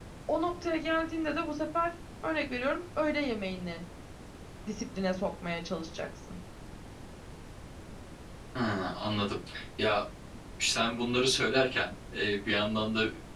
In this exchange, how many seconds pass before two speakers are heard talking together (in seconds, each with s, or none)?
none